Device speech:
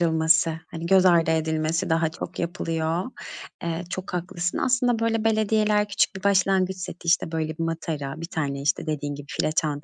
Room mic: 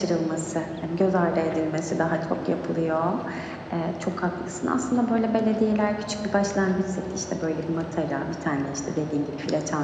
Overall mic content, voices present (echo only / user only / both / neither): echo only